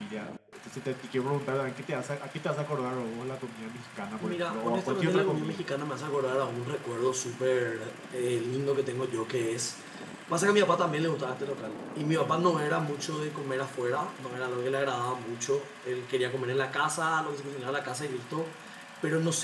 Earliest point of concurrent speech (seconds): 4 s

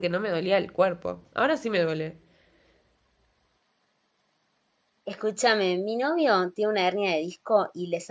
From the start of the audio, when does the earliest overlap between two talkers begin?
none

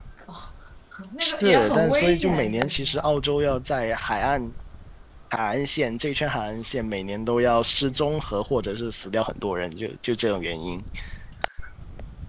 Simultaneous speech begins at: 1 s

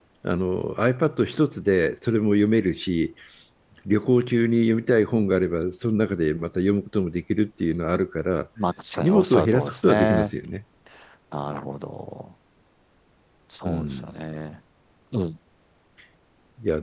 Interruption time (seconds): 9 s

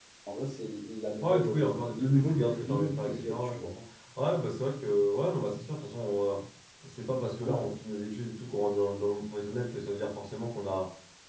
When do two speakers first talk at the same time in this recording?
1 s

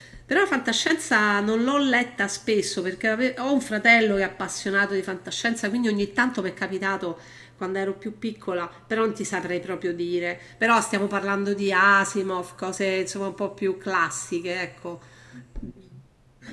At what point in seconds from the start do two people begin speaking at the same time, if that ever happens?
none

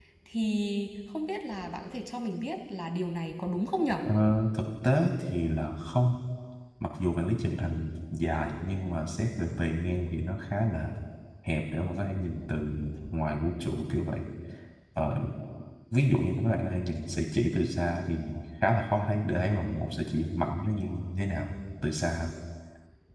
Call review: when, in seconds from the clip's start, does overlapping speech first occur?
none

